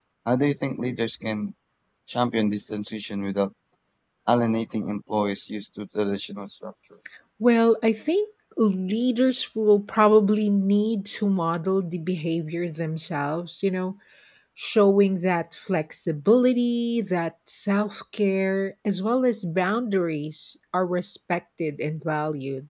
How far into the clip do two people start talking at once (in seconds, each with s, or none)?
none